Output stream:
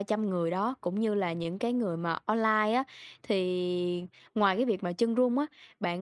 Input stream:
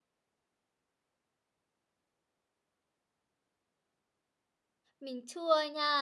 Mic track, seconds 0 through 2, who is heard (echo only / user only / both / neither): neither